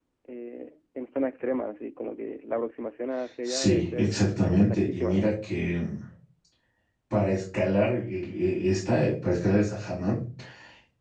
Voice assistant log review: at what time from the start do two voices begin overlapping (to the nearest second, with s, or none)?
3 s